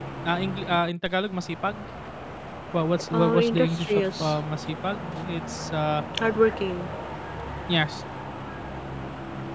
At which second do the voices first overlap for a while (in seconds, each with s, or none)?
3.1 s